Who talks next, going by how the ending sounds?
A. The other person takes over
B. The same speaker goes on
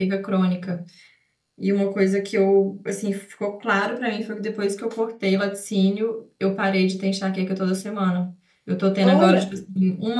B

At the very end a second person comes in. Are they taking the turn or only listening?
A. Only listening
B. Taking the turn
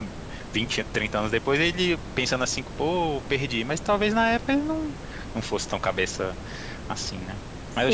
B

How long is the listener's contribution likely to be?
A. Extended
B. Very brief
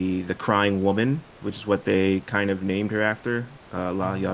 A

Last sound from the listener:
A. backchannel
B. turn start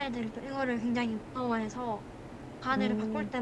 A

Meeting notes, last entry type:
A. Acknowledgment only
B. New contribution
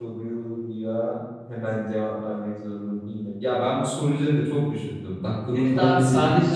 B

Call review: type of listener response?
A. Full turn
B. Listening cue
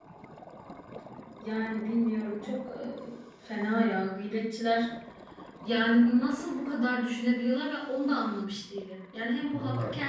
B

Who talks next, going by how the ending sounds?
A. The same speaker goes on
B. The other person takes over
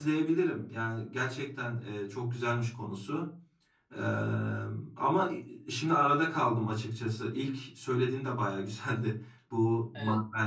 A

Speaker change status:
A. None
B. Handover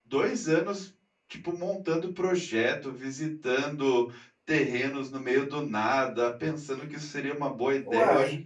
A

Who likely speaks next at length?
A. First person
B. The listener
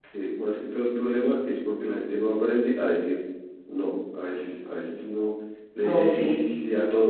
A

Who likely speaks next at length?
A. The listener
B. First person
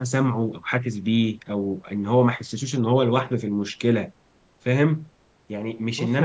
B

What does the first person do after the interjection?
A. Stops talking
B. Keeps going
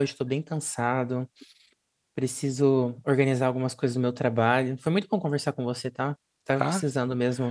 B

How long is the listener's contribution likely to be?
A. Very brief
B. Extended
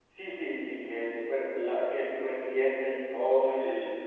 B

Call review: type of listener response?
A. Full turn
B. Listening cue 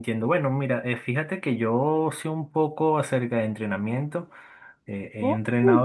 B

